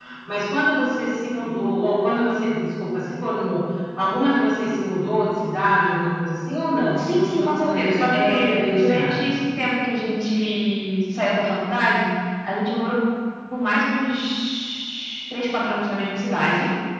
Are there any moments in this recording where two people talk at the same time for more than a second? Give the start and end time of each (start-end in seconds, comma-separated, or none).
6.9-9.3